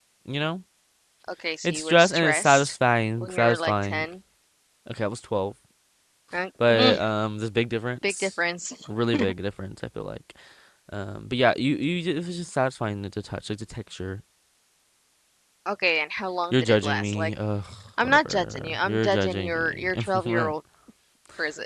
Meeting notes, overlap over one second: present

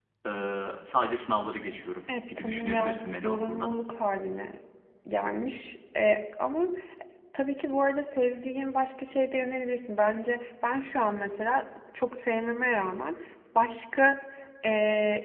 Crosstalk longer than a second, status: present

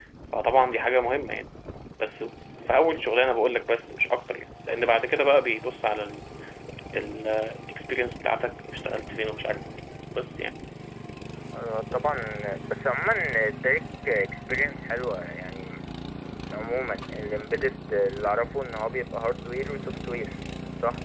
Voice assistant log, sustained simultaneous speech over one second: none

